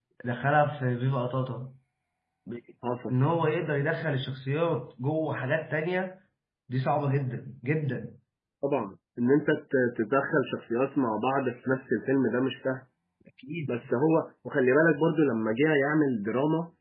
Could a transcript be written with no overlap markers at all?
Yes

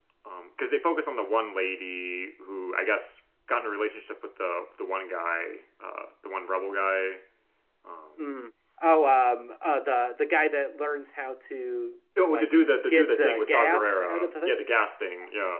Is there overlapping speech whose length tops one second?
Yes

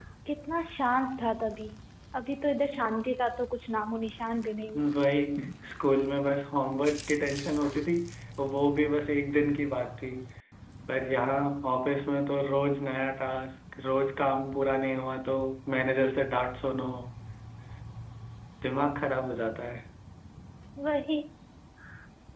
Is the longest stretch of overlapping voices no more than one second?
Yes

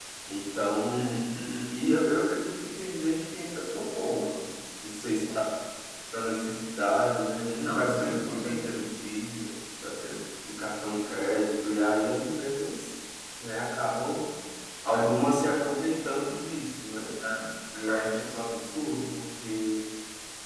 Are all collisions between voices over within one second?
No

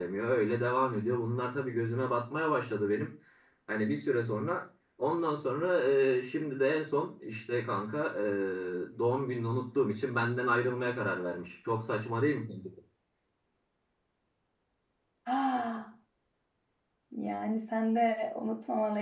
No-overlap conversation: Yes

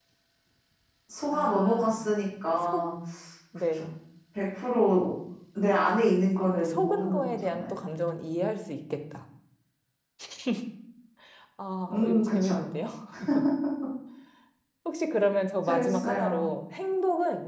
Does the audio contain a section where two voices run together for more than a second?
Yes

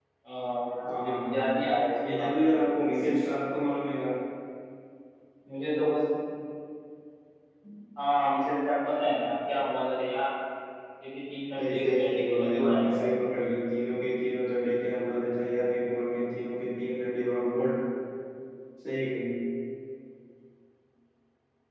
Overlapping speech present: Yes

